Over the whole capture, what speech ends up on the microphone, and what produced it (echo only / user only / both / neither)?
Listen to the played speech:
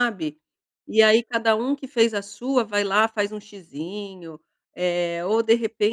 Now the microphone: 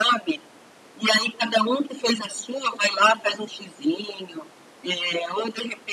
echo only